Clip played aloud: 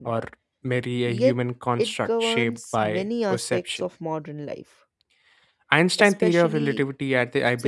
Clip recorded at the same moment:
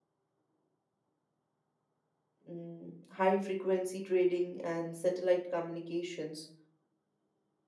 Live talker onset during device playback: 2.5 s

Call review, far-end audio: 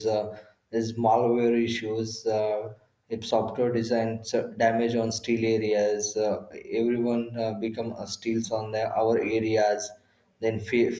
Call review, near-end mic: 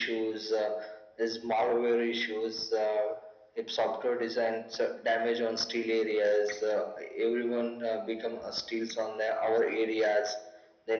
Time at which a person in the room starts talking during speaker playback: none

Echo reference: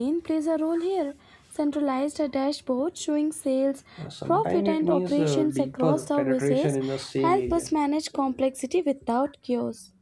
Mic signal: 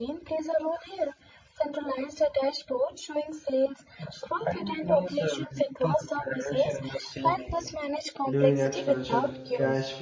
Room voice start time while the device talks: 8.3 s

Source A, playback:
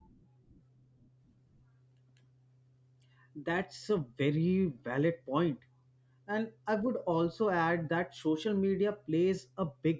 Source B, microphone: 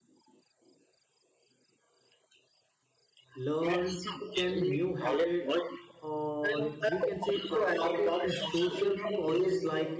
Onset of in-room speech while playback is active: 3.4 s

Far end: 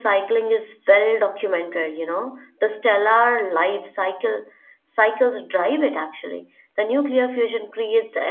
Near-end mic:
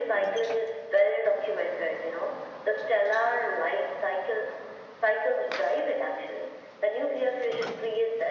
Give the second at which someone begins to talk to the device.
none

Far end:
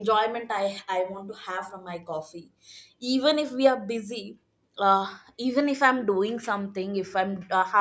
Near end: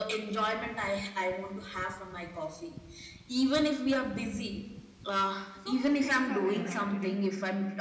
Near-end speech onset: 5.6 s

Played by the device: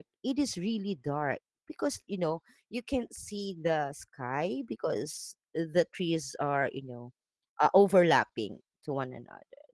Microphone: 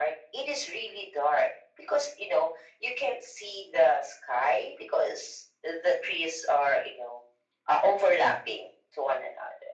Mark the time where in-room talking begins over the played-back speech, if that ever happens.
none

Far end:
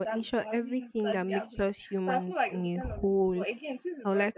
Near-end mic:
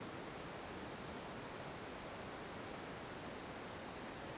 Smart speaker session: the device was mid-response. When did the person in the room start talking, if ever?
none

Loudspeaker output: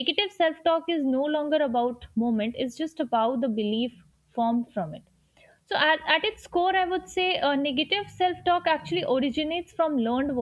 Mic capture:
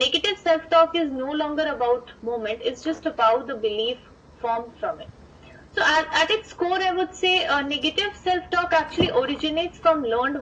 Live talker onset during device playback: none

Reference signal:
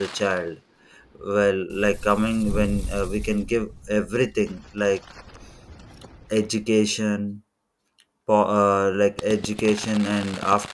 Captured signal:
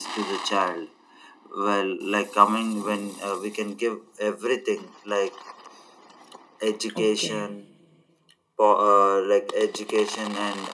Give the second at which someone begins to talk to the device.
7.0 s

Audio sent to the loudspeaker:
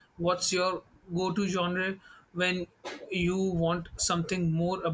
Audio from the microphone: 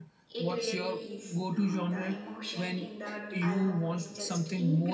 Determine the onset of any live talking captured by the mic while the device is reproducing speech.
0.3 s

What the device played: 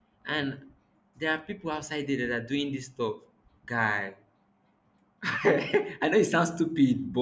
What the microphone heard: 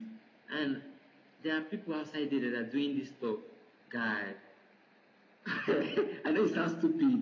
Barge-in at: none

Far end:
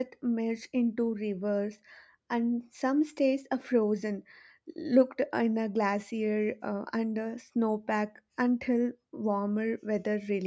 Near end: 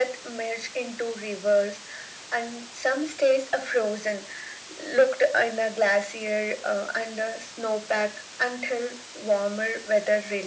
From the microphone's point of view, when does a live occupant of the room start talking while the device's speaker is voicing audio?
none

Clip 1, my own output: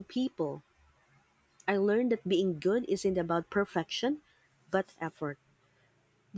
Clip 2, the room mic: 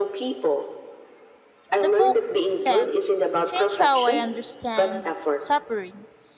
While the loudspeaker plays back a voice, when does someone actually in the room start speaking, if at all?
1.8 s

